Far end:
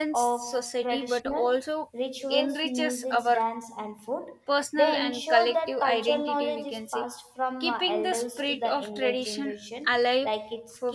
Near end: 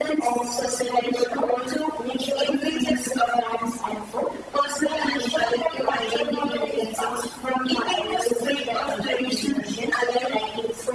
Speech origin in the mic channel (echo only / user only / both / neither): echo only